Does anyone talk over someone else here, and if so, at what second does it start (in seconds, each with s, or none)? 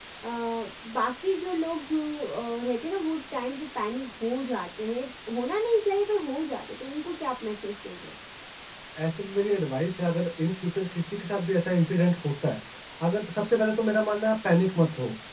none